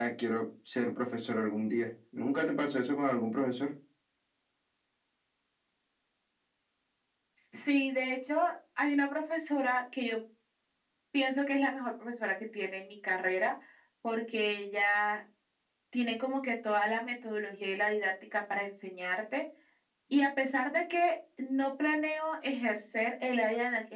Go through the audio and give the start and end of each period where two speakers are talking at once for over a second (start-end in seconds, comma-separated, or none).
none